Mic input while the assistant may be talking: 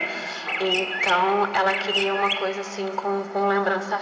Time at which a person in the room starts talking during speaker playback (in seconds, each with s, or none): none